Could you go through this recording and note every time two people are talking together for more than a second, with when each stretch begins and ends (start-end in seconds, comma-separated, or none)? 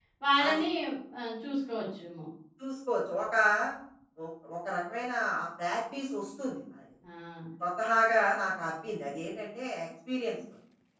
none